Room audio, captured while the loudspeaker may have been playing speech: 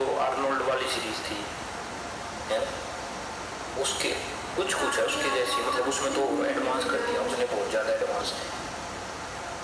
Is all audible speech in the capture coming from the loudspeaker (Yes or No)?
No